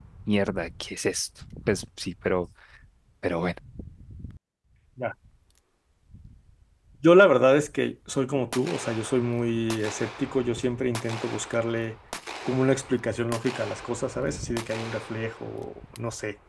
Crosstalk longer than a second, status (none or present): none